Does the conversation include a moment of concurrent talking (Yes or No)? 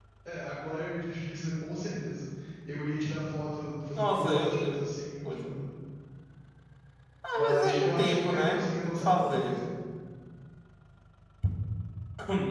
Yes